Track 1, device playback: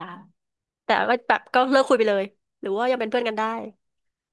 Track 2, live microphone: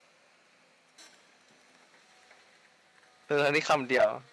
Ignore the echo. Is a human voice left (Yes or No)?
Yes